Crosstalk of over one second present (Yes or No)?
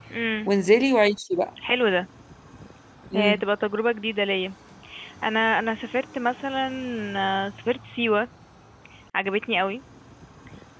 No